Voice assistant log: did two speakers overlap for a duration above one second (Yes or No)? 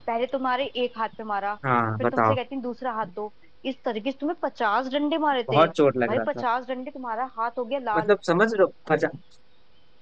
No